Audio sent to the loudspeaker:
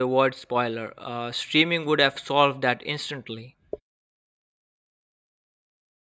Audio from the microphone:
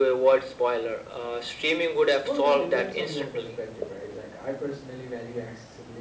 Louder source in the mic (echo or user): echo